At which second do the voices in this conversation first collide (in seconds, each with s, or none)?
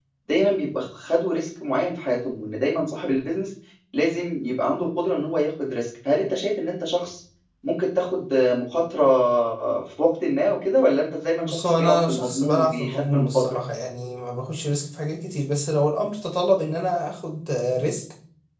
11.4 s